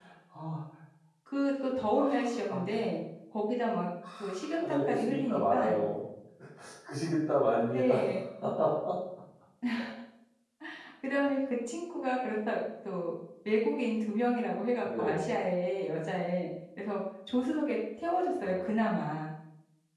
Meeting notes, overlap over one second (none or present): present